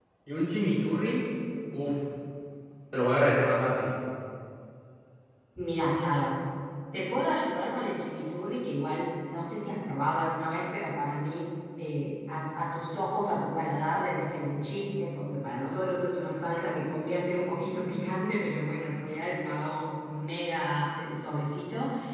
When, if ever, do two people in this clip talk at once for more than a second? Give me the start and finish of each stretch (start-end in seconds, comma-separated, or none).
none